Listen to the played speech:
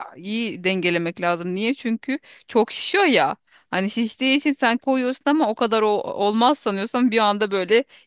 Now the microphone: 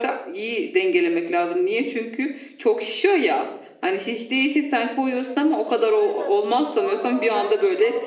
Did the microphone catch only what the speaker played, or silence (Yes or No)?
No